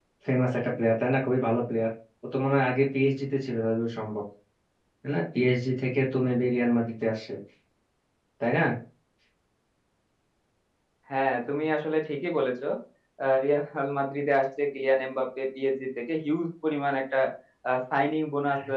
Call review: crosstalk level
none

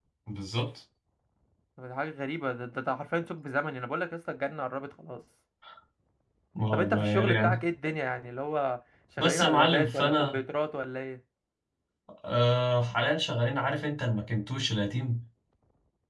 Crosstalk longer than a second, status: present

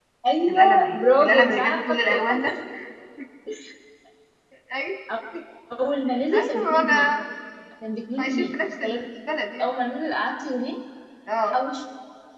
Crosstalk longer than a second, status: present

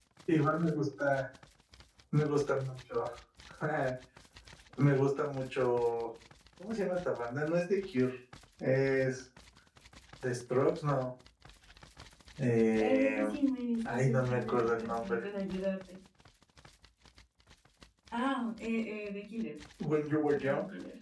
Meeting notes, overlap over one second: present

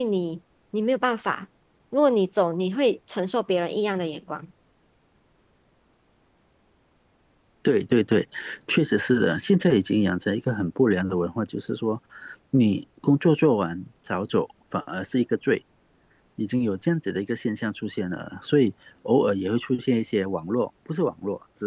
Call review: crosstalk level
none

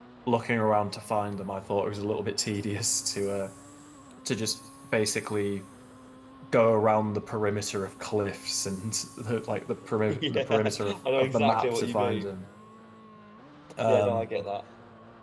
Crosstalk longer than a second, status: present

